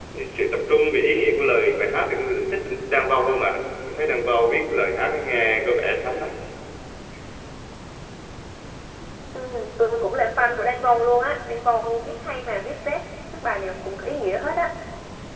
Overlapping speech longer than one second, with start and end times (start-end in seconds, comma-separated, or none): none